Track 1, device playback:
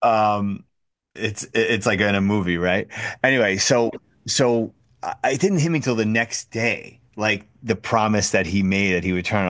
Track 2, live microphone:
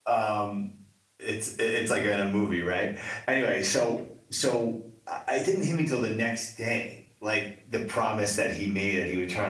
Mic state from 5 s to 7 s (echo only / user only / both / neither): echo only